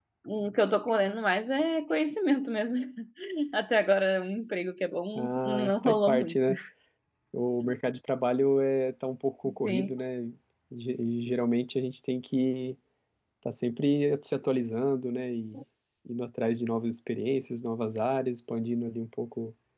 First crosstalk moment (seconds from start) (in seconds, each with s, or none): 5.2 s